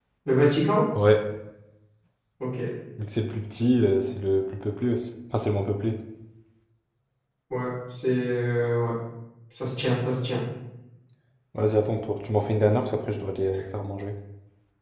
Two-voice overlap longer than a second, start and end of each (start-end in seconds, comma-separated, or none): none